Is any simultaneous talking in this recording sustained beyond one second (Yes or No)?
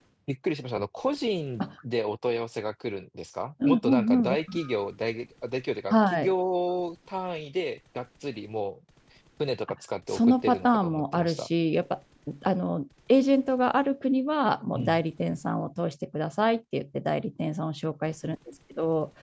Yes